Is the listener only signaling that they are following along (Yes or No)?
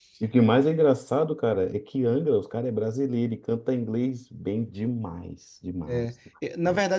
No